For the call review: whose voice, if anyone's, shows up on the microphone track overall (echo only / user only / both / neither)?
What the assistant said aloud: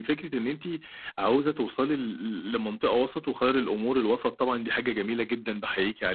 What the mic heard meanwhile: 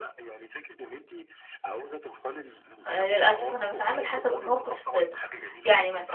both